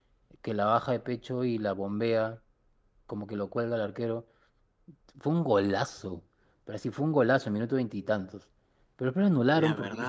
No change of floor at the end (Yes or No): Yes